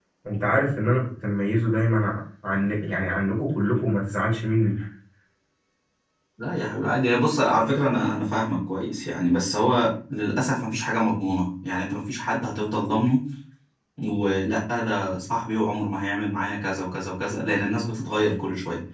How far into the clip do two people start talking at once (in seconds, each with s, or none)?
none